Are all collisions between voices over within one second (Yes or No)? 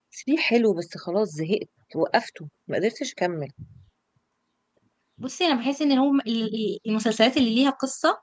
Yes